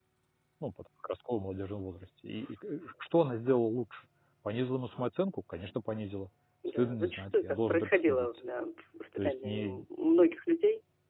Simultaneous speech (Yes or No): Yes